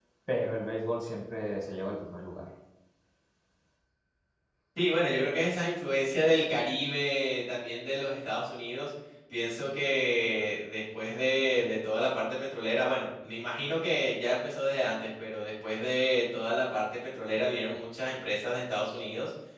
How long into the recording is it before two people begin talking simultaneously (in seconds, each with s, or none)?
none